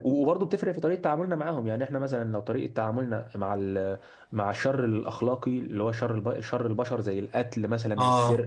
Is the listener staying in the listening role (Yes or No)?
Yes